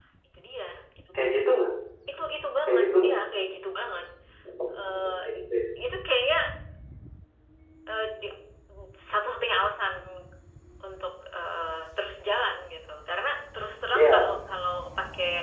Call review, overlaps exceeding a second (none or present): none